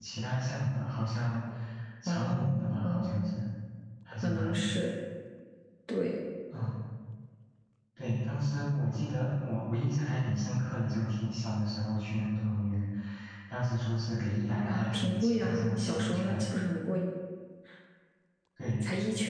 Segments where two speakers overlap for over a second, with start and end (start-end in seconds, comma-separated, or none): 2.1-3.3, 14.6-16.4